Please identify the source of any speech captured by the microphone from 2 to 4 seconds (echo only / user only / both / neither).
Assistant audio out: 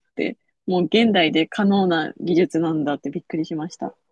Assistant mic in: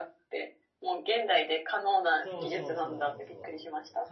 both